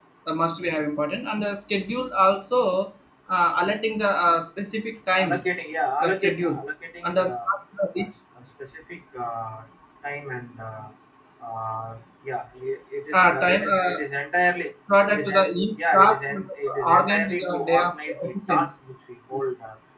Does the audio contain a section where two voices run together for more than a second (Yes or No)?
Yes